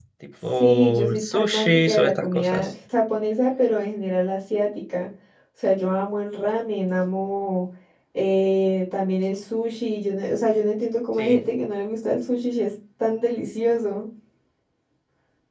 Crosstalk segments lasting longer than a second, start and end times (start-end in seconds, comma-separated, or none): 0.6-2.7